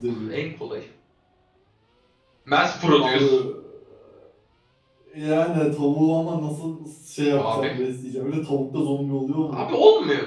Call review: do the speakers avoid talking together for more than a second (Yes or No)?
Yes